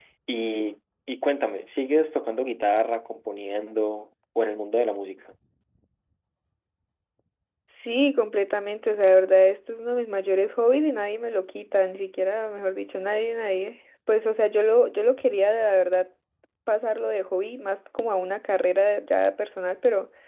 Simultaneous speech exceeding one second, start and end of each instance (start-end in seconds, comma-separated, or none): none